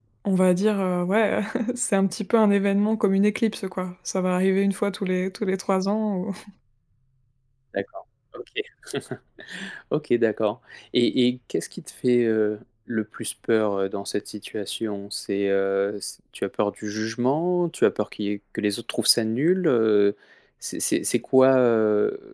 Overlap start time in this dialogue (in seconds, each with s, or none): none